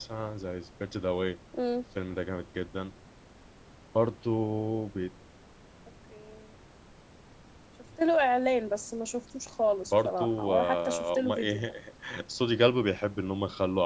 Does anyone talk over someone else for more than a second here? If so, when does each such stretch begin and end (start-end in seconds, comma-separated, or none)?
9.9-11.6